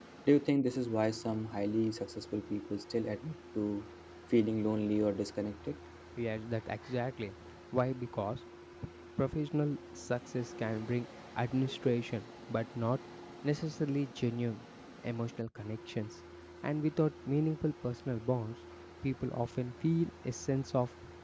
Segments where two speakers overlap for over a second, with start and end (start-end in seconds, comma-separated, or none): none